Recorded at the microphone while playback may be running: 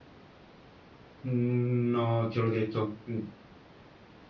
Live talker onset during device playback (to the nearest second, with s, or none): 1 s